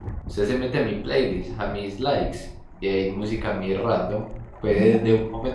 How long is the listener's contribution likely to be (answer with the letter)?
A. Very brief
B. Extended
A